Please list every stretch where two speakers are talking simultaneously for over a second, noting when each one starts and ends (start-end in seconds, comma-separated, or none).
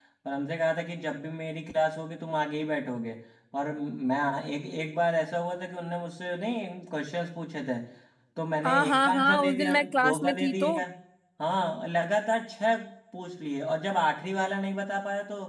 8.6-10.7